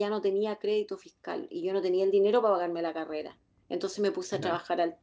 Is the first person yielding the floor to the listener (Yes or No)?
No